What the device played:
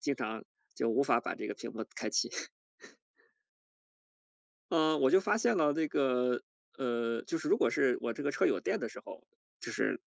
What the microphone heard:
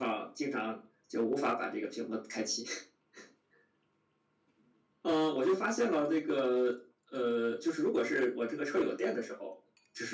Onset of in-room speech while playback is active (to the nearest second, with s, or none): none